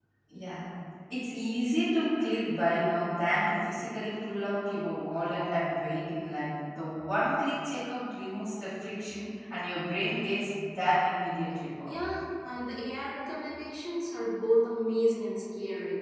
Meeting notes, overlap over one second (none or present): none